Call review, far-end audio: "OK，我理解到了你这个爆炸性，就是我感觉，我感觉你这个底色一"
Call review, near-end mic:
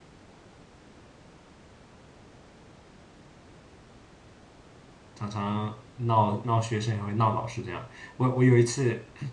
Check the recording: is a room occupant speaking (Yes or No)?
Yes